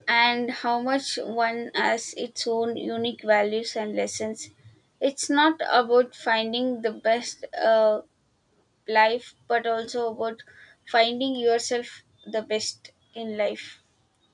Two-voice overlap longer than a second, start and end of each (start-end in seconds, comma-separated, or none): none